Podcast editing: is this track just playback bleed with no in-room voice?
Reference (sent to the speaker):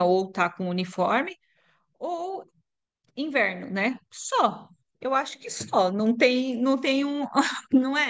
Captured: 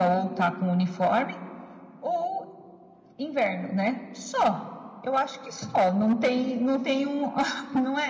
Yes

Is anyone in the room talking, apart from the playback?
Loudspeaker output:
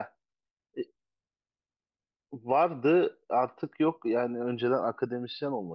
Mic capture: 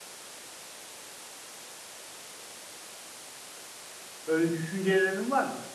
Yes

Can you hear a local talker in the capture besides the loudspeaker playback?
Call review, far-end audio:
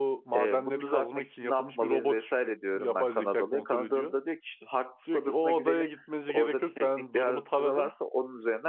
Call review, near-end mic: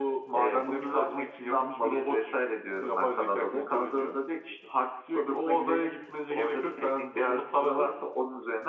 No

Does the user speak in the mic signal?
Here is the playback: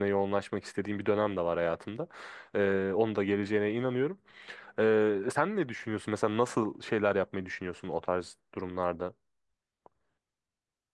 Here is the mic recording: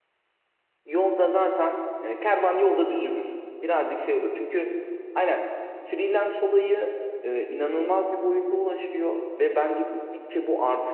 Yes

